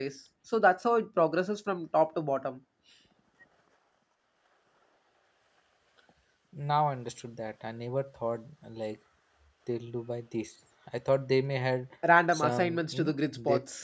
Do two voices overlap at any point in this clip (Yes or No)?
Yes